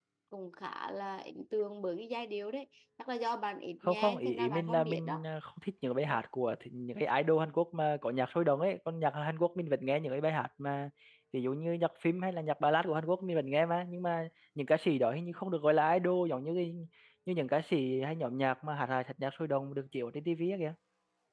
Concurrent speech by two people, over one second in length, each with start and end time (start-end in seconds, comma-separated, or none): 3.9-5.2